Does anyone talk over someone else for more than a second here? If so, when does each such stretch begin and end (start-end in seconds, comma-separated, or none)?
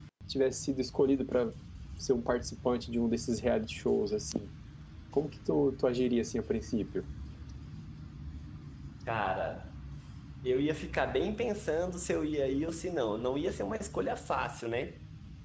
none